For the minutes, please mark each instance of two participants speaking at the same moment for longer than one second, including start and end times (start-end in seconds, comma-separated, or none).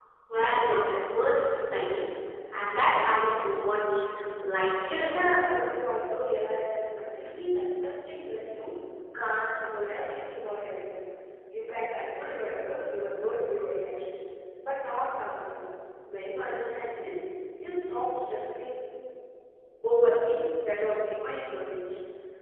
none